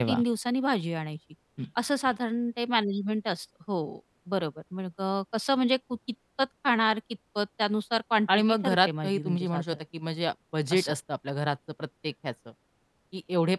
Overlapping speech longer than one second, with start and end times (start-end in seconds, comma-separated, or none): 8.3-9.6